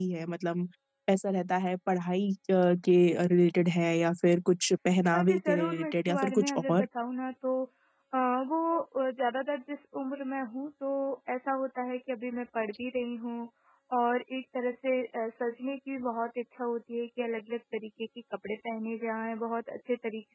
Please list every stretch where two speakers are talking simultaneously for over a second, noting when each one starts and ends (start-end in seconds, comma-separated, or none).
5.1-6.8